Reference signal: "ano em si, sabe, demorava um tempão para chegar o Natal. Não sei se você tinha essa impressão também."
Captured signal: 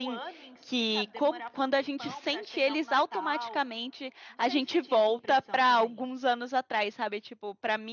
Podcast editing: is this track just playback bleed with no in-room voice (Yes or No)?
No